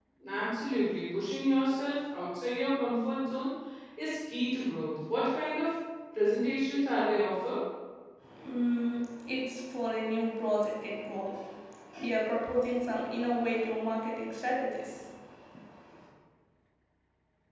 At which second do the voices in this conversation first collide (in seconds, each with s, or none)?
none